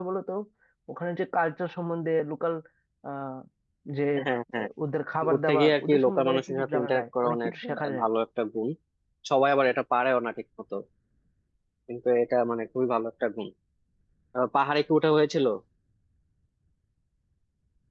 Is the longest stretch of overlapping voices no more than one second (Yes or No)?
No